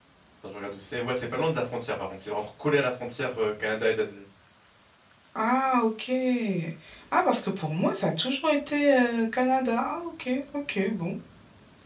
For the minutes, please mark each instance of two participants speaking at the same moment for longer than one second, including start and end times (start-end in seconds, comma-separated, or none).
none